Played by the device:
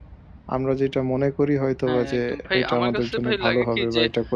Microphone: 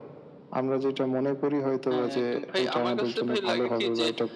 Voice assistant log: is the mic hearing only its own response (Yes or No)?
Yes